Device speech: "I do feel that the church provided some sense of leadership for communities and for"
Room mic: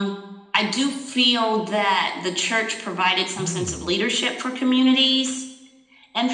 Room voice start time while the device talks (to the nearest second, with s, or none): 3 s